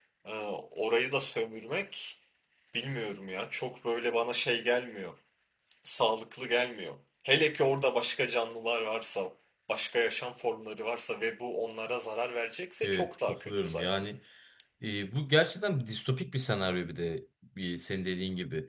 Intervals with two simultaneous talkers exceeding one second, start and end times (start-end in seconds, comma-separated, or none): 12.8-14.1